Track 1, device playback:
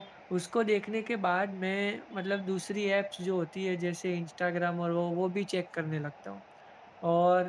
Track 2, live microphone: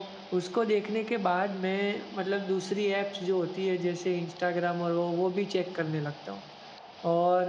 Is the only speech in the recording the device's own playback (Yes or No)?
Yes